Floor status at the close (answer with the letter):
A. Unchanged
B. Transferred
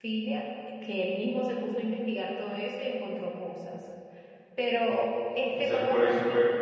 B